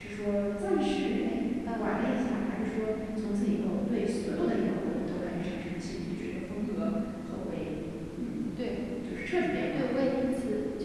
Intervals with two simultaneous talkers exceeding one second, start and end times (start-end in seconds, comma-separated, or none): none